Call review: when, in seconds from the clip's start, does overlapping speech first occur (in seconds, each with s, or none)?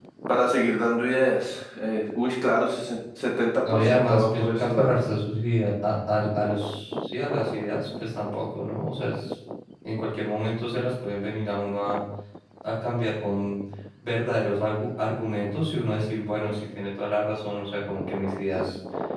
3.6 s